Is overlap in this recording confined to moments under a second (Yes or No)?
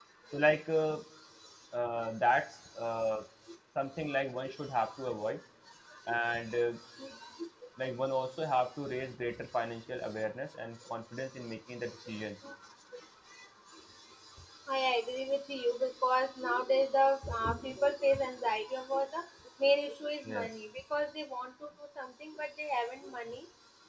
Yes